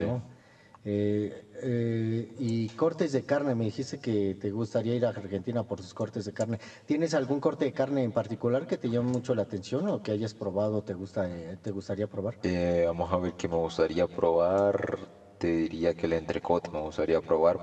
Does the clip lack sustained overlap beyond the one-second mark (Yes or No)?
Yes